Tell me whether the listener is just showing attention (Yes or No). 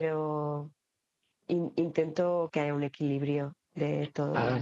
No